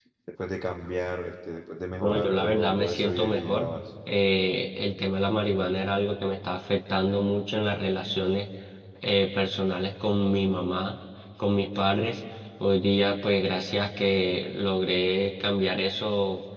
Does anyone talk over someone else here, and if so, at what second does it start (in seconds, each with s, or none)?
2.0 s